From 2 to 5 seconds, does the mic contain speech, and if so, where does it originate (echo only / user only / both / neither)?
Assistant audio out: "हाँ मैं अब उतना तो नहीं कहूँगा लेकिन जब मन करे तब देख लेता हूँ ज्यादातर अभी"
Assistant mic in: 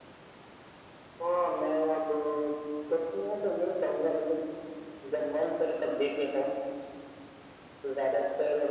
echo only